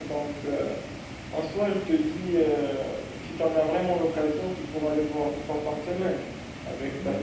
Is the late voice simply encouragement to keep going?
No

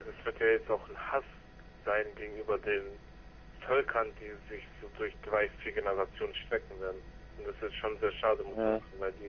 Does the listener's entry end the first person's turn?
No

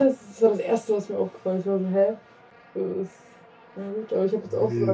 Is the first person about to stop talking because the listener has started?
Yes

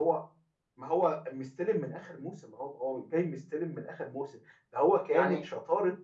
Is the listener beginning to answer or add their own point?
No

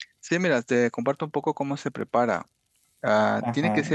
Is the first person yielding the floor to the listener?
No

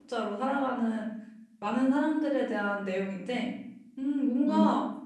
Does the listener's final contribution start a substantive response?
No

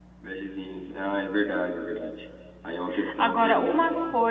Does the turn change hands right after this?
Yes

